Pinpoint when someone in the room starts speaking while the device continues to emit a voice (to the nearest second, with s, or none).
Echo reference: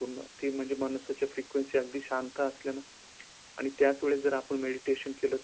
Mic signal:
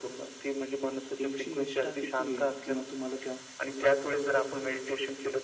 1 s